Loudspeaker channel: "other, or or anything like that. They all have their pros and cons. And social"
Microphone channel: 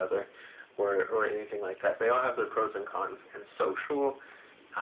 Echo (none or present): present